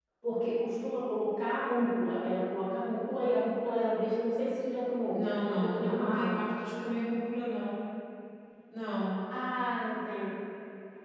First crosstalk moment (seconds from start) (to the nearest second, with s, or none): 5 s